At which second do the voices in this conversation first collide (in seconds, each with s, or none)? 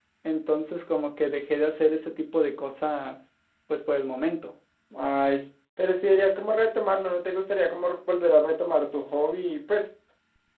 none